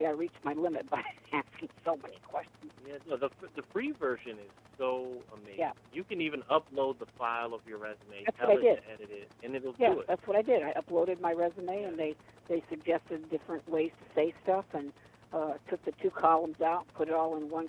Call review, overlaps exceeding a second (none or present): none